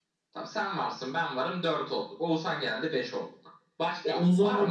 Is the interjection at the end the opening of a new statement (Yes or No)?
Yes